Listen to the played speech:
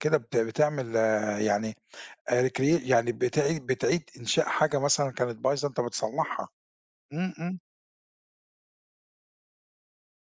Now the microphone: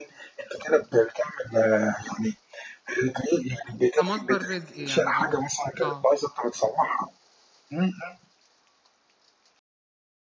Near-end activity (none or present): present